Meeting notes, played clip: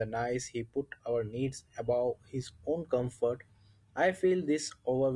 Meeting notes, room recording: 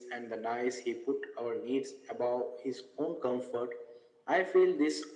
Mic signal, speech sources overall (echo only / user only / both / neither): echo only